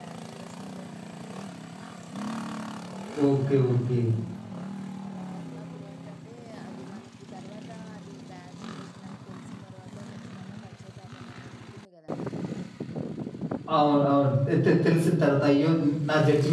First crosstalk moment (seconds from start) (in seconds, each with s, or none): none